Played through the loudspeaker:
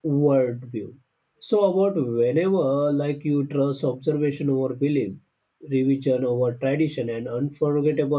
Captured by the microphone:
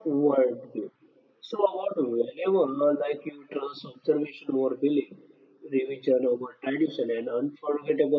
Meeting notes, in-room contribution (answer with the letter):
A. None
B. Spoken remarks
A